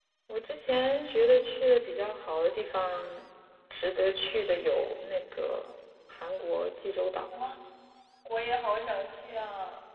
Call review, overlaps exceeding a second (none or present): none